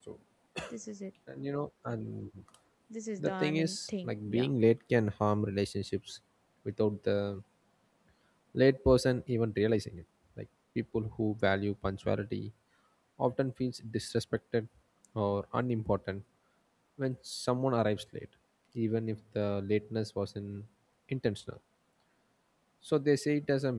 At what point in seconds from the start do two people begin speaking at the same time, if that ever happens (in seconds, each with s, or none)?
3.2 s